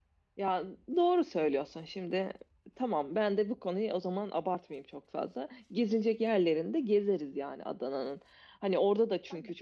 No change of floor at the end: Yes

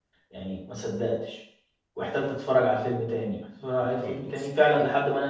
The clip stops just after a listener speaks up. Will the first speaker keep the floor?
Yes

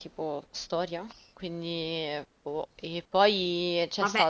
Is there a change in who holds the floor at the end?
Yes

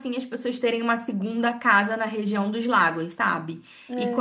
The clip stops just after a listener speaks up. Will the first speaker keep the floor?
Yes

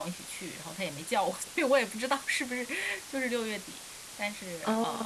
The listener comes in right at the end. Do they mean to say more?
No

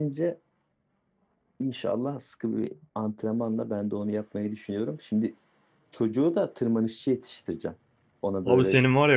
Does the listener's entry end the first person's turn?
Yes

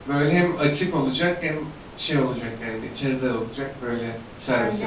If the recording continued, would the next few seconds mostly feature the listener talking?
Yes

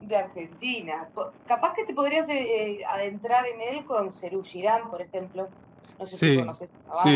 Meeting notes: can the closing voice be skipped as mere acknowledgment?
No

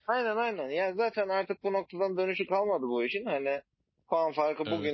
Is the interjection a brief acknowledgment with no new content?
Yes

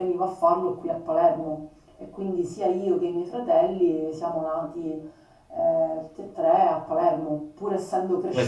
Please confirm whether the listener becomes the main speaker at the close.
Yes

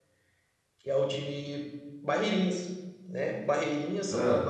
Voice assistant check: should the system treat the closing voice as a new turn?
No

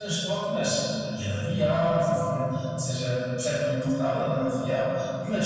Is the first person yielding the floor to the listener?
No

